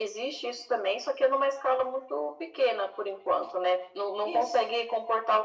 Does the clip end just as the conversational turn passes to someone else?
No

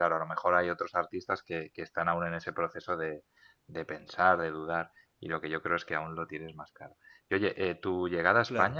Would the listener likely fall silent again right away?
Yes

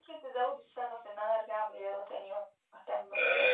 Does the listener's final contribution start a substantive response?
Yes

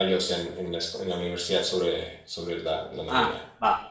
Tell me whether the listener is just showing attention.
No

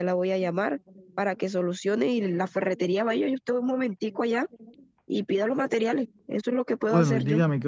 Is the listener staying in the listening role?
No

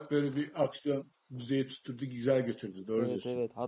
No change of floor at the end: No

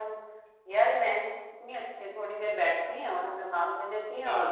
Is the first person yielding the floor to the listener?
No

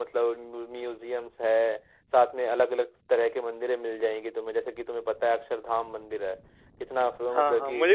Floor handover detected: Yes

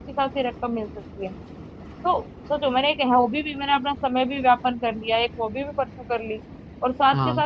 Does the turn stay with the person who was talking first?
Yes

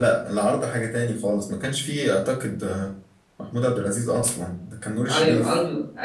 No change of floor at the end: No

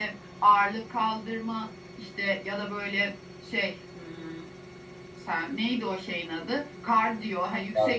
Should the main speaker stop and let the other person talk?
No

